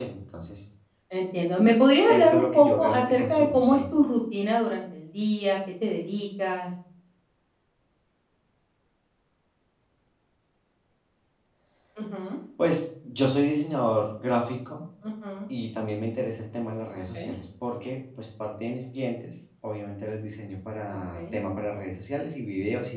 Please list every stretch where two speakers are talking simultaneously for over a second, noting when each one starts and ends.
2.1-3.8

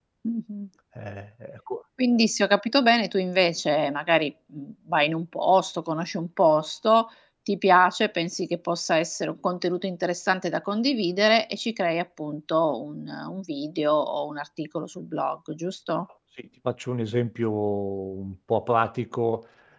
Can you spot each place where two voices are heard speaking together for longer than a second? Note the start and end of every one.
none

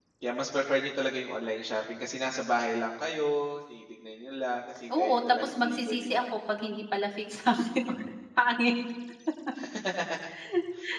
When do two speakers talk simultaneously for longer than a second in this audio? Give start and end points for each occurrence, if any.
5.0-6.2

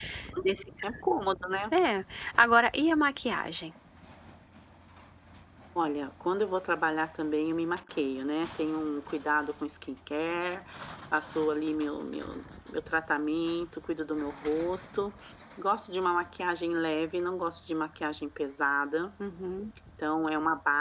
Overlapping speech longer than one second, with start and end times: none

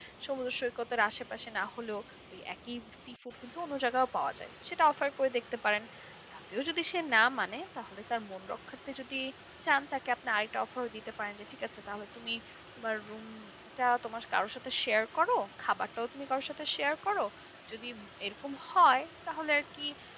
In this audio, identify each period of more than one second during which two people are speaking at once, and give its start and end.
none

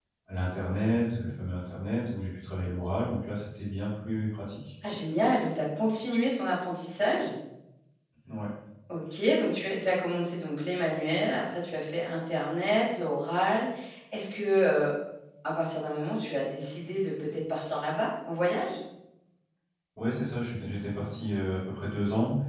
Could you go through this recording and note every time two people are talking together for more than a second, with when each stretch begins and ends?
none

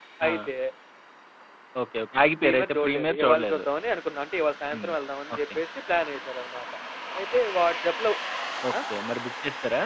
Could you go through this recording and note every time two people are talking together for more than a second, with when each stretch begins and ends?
2.4-3.6

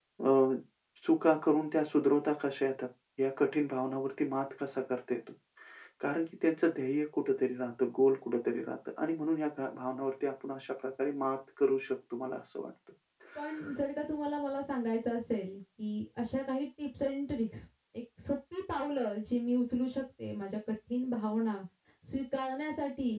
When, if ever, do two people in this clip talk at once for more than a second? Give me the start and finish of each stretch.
none

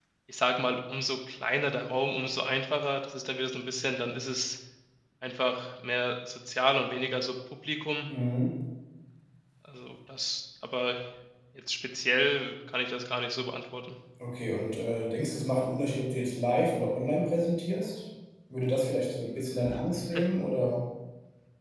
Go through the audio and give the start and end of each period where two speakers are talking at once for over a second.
none

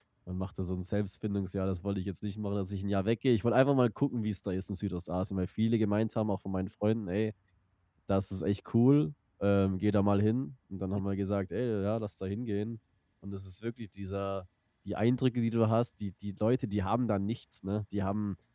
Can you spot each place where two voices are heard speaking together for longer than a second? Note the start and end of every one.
none

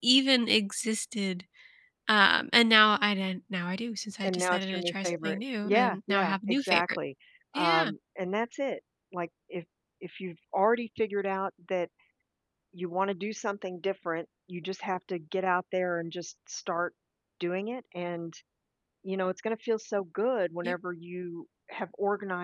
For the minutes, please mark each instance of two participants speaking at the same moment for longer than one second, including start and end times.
4.2-7.0

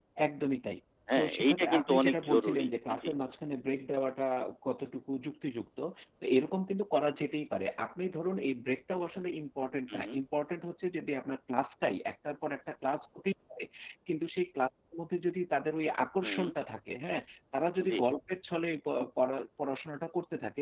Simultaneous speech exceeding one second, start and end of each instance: 1.1-3.1

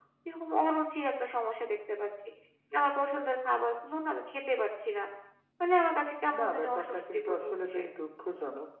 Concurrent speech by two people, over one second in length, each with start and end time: 6.4-7.8

